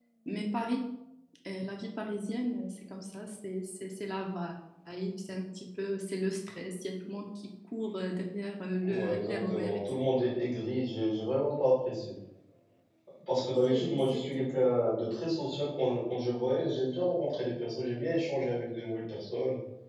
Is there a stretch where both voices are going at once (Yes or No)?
Yes